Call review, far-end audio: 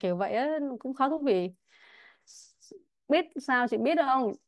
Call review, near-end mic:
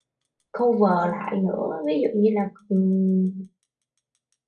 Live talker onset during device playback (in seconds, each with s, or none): 0.5 s